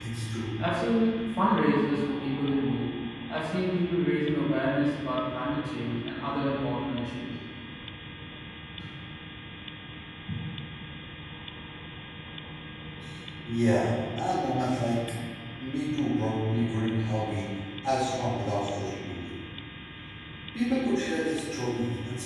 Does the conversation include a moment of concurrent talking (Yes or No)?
No